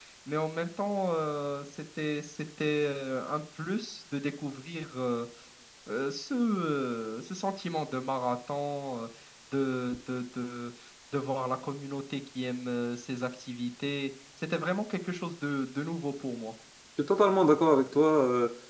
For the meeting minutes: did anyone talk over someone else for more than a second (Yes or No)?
No